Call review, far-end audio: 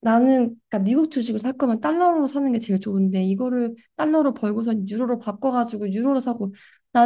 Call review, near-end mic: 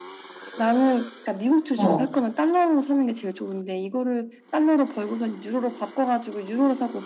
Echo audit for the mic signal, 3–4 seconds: echo only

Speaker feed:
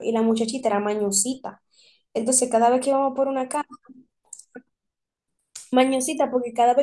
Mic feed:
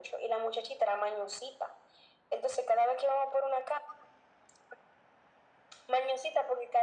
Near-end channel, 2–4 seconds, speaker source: echo only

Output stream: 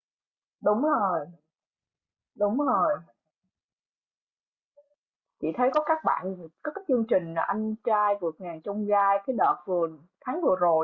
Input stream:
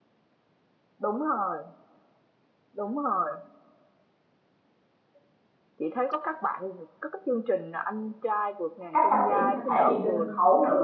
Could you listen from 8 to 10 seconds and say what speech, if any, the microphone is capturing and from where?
both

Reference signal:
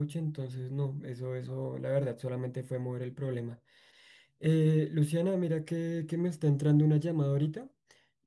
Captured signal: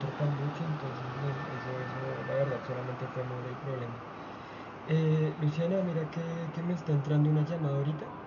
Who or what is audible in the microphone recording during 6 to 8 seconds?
echo only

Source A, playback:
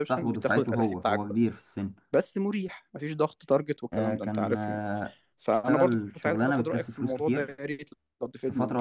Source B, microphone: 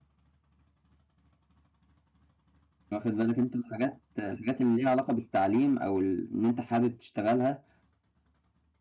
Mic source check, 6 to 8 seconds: user only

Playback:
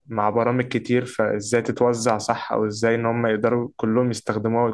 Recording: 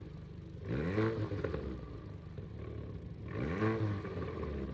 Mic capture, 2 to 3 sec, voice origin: neither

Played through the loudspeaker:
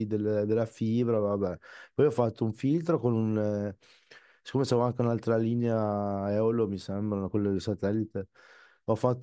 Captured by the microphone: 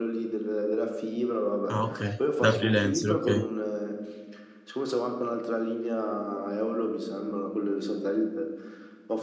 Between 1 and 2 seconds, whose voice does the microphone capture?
both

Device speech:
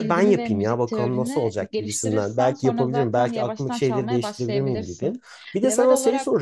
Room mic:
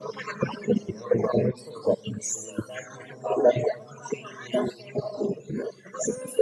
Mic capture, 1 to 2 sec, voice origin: echo only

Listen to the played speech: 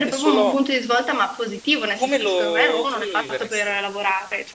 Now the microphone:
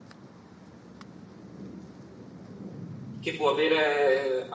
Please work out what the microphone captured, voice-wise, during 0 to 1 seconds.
neither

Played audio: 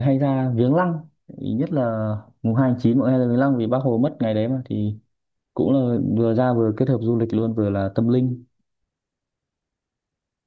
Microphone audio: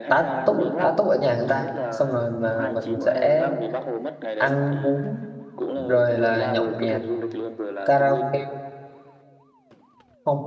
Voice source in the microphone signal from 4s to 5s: both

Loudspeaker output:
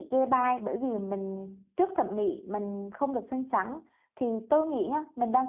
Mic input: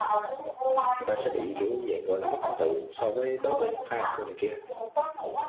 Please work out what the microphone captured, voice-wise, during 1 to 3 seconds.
both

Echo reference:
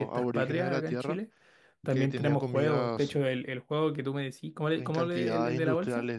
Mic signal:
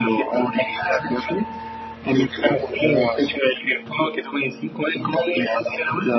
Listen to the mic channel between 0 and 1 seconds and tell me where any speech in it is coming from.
echo only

